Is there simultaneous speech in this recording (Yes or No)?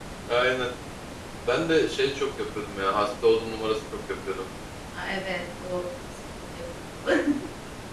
No